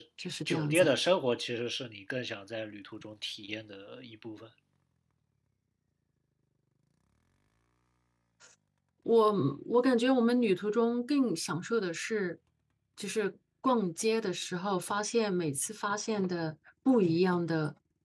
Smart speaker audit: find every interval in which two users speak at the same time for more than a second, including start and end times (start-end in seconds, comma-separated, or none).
none